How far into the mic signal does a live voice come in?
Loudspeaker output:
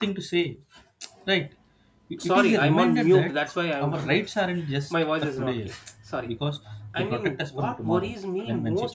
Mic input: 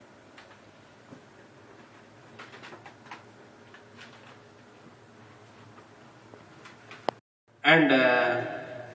7.6 s

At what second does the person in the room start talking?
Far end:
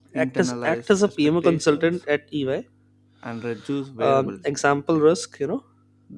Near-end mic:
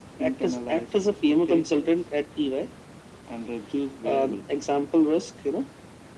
none

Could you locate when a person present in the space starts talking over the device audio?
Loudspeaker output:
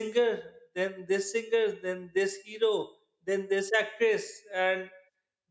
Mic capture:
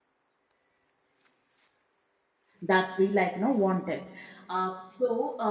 2.6 s

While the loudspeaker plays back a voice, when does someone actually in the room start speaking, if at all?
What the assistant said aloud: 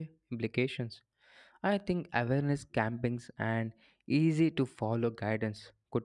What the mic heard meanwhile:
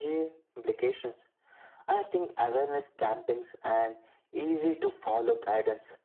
none

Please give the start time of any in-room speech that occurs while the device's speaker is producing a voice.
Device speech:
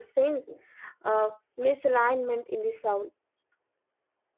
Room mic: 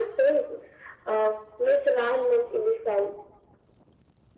none

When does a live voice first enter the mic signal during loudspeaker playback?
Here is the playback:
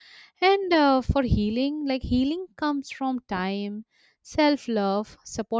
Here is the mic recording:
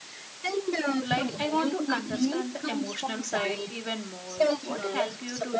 1.0 s

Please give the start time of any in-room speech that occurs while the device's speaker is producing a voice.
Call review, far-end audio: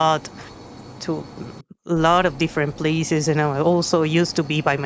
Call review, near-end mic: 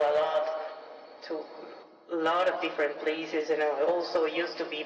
none

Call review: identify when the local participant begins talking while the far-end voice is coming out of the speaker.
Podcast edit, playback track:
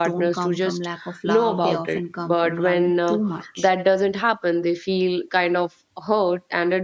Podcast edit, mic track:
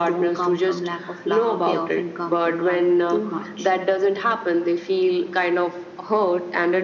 none

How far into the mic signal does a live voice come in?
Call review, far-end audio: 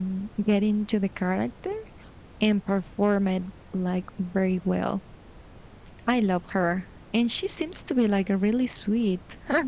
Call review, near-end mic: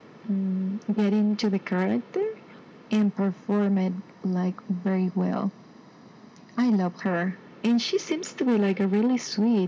none

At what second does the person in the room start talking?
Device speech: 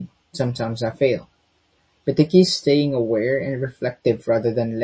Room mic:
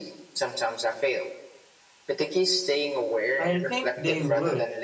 3.4 s

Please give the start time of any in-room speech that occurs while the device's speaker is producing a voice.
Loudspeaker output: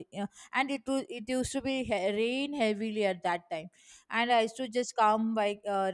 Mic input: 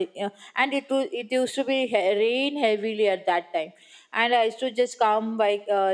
none

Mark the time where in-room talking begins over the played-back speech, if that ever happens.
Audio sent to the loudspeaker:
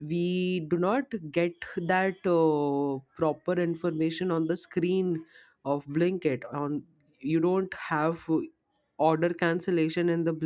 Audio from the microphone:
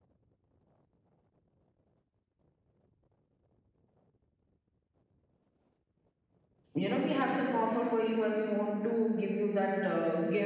6.8 s

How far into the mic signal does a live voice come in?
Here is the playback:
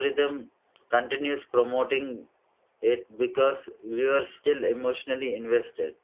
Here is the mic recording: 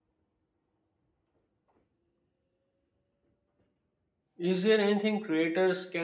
4.4 s

